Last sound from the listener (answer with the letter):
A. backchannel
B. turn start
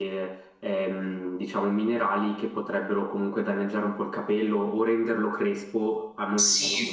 B